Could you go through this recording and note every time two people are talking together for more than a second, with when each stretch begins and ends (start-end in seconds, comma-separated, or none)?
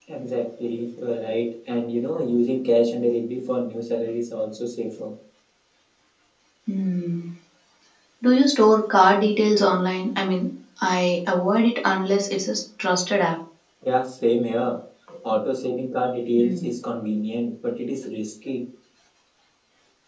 none